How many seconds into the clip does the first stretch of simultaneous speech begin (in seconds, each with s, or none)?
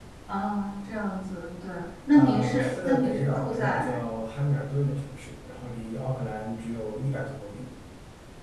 2.1 s